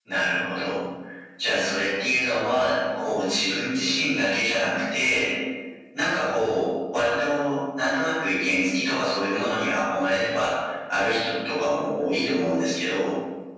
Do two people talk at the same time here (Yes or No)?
No